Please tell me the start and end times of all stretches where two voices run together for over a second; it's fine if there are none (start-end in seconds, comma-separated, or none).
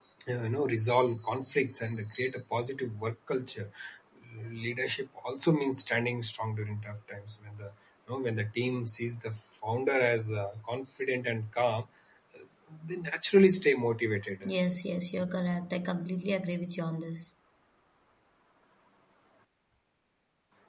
none